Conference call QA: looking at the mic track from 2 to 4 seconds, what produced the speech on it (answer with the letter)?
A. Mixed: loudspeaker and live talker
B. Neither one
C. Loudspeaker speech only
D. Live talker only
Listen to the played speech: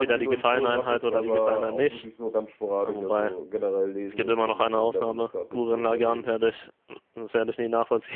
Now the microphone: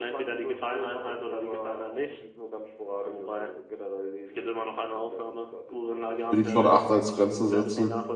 C